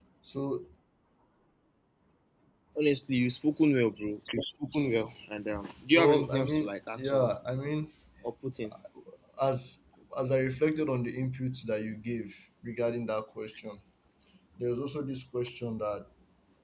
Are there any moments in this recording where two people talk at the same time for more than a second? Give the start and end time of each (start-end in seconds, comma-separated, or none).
5.9-7.3